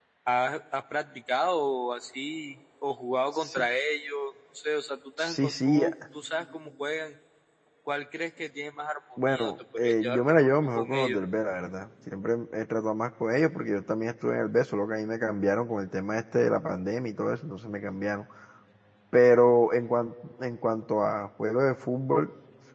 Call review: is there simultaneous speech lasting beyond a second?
Yes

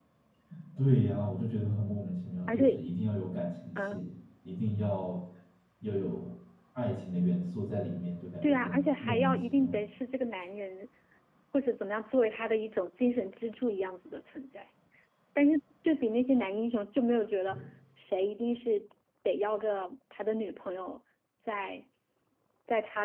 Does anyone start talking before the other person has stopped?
Yes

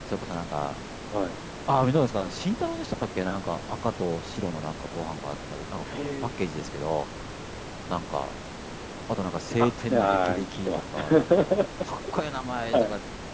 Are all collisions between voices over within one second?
No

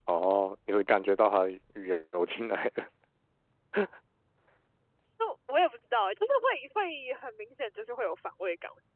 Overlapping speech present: No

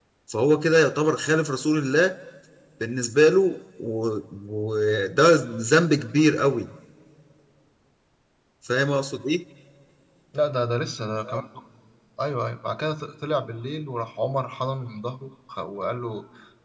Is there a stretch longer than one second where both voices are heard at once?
No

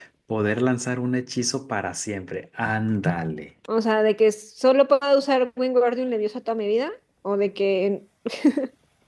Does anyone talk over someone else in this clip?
No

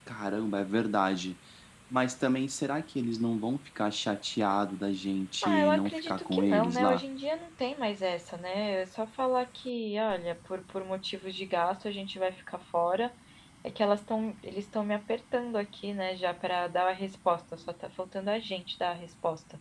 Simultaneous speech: Yes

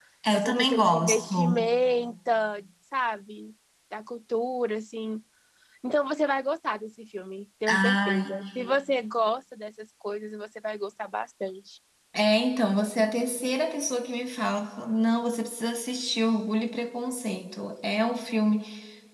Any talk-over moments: Yes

